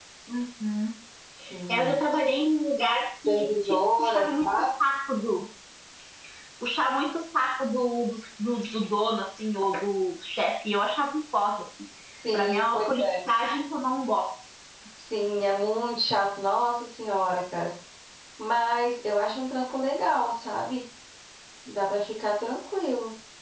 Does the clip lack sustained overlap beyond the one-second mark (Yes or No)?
No